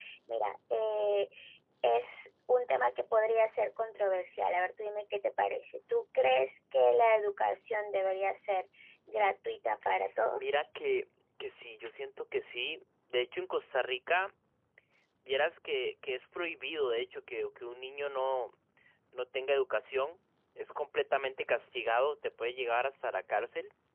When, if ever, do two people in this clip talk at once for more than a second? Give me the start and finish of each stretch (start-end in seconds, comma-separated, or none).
none